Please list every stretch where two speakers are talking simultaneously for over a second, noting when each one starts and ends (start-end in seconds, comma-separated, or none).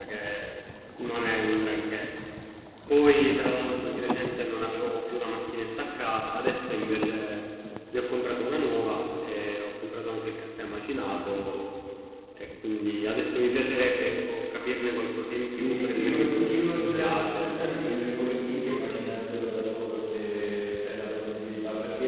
15.6-17.6